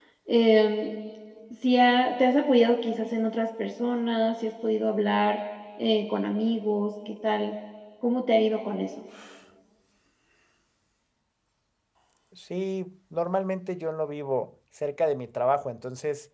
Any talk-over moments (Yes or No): No